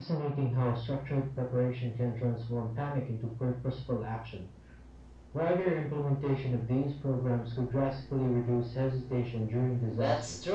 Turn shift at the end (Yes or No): Yes